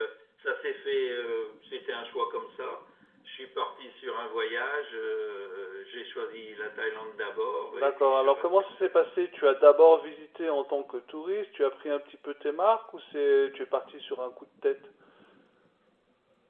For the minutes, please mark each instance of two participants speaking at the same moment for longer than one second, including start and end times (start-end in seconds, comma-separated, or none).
7.7-9.1